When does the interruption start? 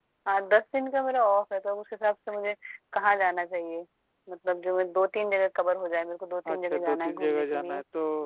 6.5 s

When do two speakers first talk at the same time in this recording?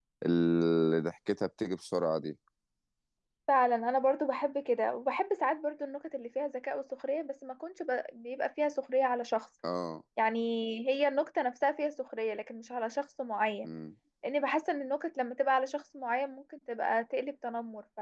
none

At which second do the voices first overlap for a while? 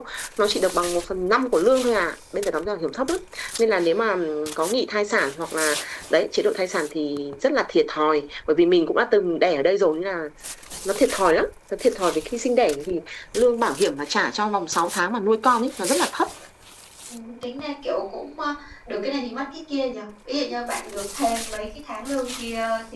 none

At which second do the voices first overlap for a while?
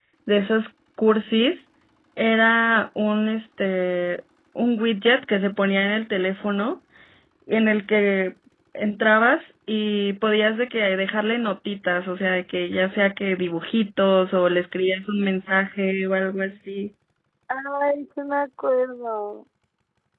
none

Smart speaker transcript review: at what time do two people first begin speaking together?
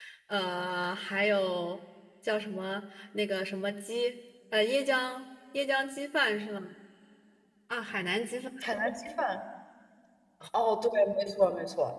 none

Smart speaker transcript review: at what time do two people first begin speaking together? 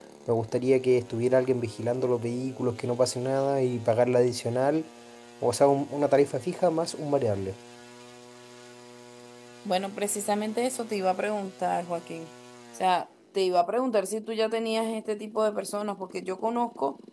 none

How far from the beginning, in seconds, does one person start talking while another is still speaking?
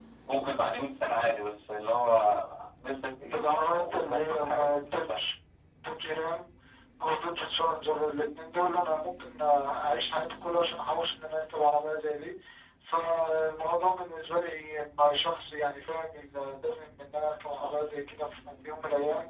3.3 s

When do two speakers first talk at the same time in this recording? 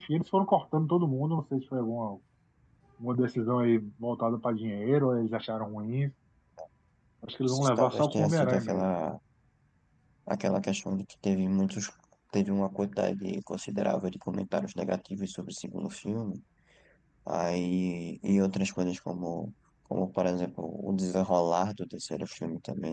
7.5 s

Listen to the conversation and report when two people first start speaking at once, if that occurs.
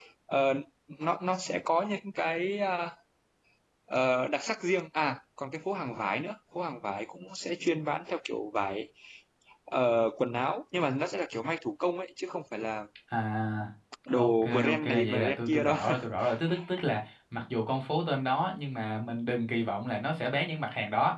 14.1 s

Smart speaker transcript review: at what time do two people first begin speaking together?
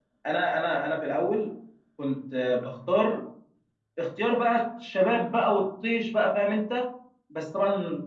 none

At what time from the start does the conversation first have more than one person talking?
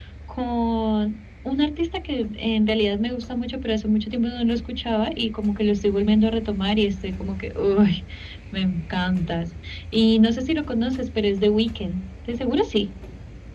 none

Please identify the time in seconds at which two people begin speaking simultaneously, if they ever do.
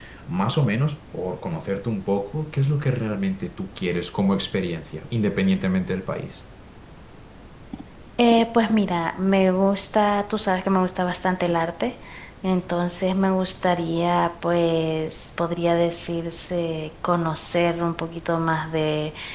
none

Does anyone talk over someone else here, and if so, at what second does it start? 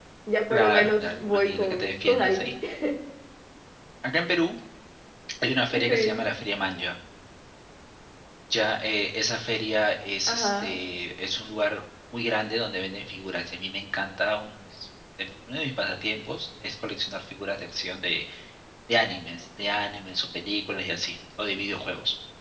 0.5 s

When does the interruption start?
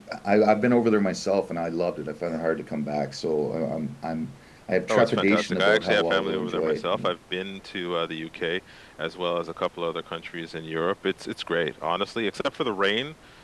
4.9 s

